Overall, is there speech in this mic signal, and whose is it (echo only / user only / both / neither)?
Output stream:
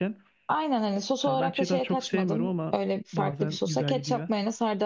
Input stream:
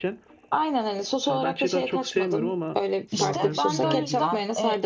both